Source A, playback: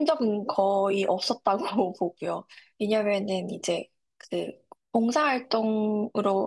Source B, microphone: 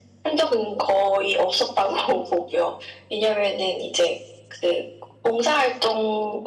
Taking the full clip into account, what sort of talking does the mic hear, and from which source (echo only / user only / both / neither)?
echo only